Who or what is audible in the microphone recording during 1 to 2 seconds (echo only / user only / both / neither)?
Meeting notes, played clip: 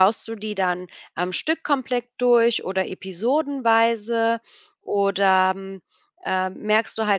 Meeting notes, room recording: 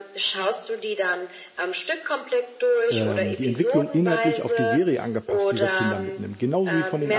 echo only